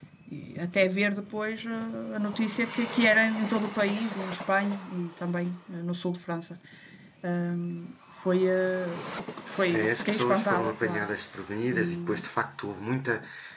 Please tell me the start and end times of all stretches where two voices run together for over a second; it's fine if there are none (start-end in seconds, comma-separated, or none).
9.7-11.1